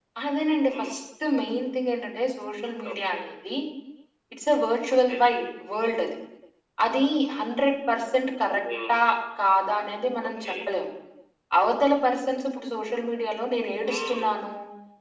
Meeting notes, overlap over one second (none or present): none